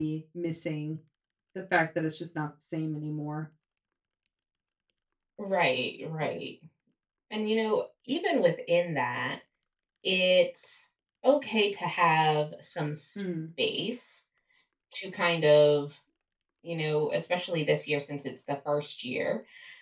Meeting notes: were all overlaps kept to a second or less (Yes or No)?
Yes